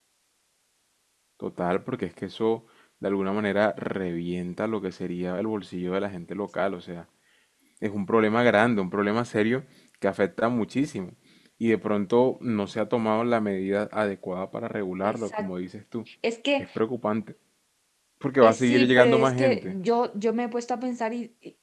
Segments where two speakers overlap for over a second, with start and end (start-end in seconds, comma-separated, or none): 18.4-19.8